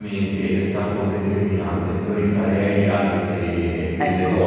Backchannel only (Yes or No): Yes